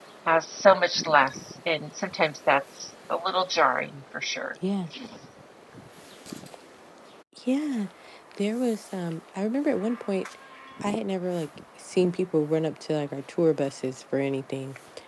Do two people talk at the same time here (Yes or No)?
No